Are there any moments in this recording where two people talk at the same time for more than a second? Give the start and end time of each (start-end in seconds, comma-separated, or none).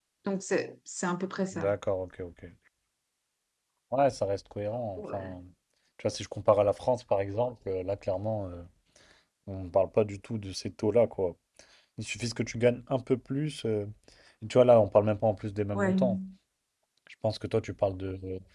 none